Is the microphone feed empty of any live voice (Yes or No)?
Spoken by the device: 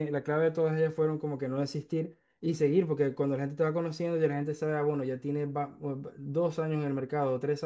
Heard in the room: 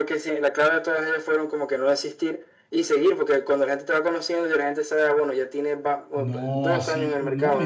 No